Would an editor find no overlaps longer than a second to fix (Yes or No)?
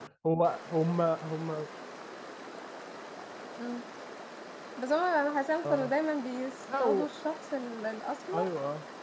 Yes